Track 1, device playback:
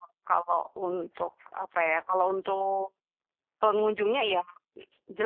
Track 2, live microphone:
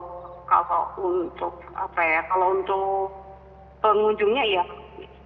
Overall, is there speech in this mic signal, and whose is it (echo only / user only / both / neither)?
echo only